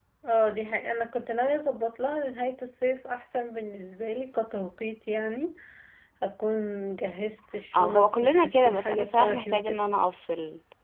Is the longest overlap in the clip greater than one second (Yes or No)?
Yes